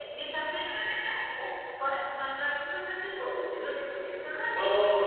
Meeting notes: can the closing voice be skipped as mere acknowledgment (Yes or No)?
No